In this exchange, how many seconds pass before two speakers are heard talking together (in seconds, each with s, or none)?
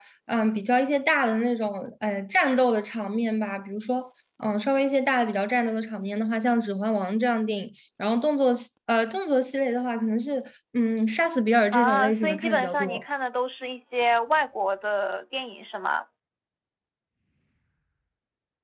11.7 s